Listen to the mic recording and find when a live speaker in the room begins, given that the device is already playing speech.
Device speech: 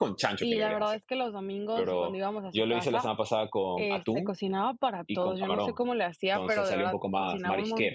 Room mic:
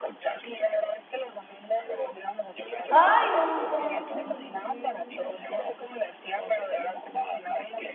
2.9 s

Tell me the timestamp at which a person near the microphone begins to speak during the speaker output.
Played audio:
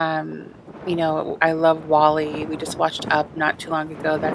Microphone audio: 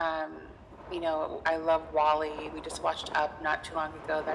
none

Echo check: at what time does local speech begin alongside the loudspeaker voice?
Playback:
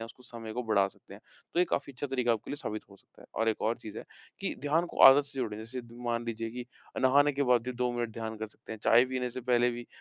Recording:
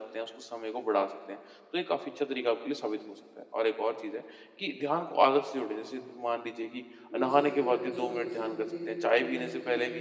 7.1 s

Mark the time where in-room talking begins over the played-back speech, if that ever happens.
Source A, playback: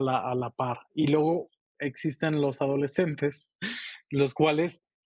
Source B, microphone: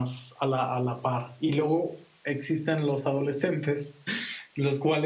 none

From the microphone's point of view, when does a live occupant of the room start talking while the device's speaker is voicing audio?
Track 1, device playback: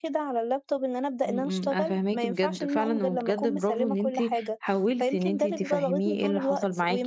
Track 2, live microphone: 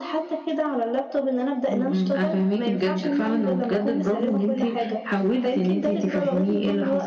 none

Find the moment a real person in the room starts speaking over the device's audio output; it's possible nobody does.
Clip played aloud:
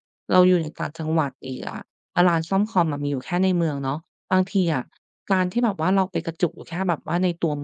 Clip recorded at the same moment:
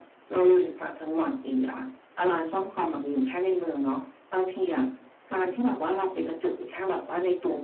none

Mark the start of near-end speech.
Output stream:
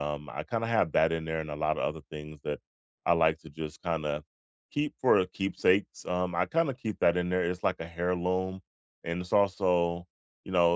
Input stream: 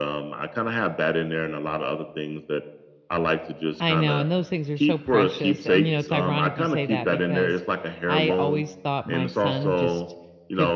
3.8 s

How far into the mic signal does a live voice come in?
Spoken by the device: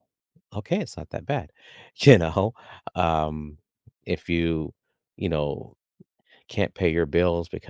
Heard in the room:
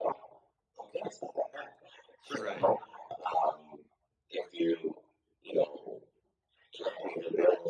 2.3 s

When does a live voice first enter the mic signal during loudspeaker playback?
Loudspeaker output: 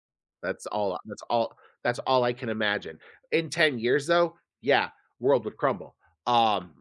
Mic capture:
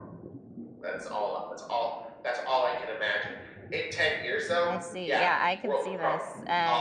4.6 s

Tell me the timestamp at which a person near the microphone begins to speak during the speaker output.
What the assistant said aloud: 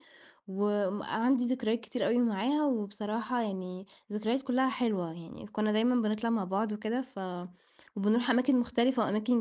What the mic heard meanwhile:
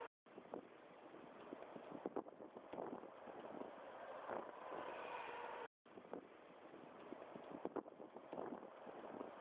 none

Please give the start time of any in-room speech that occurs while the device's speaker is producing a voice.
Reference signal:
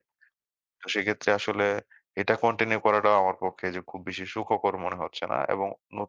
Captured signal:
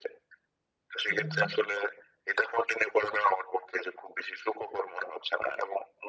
1.1 s

